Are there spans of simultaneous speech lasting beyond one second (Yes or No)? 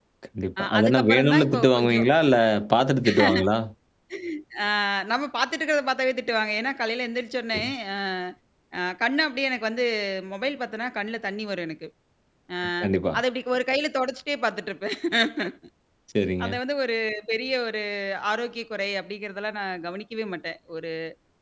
Yes